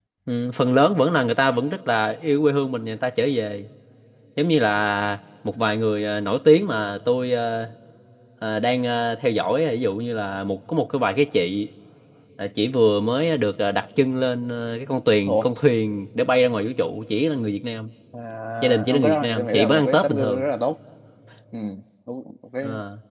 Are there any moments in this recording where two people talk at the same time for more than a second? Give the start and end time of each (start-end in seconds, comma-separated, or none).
18.6-20.4